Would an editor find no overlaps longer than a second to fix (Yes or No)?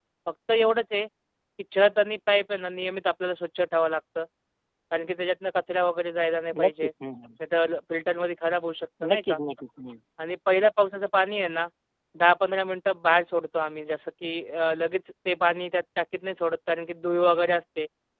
Yes